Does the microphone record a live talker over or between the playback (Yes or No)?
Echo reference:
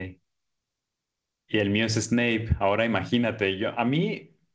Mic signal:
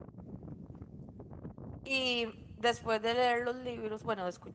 Yes